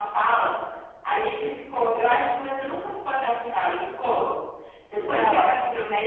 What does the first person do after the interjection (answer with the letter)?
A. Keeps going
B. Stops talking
A